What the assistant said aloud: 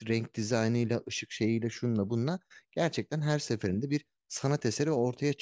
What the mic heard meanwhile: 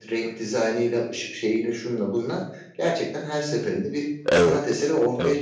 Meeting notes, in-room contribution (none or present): present